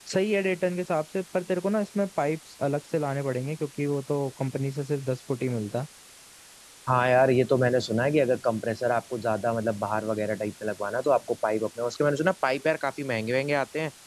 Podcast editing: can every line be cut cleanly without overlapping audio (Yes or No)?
Yes